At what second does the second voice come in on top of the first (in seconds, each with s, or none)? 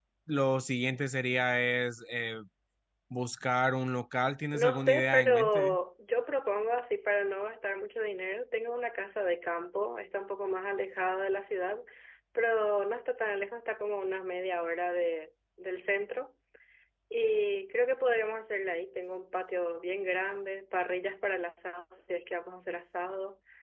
4.5 s